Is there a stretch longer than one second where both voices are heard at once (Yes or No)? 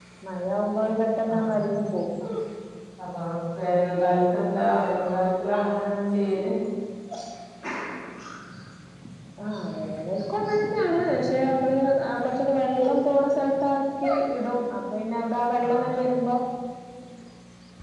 No